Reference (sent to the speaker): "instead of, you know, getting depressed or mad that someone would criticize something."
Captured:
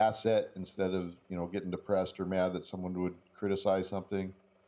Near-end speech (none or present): none